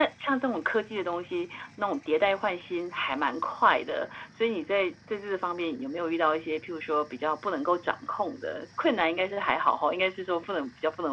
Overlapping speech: No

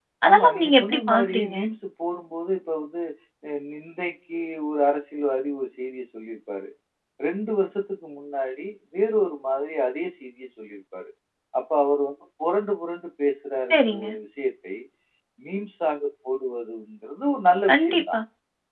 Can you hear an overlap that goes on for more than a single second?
Yes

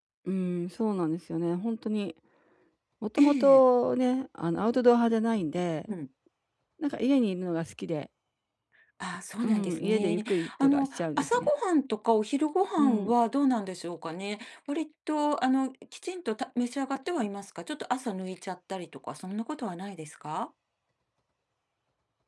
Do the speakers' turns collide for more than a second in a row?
Yes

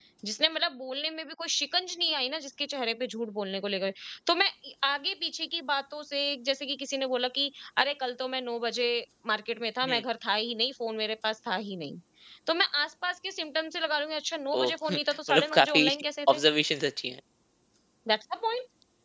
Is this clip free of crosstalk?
No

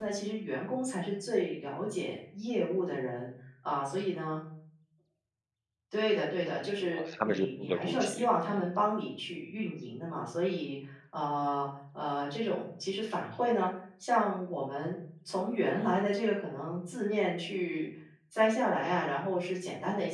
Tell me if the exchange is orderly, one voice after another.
No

